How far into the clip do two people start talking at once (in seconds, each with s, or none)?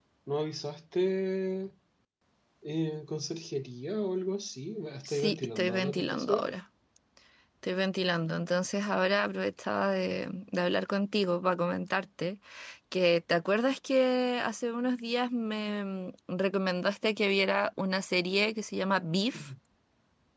5.0 s